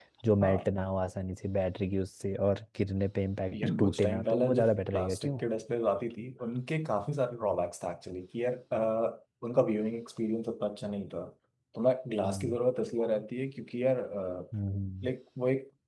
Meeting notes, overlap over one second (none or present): present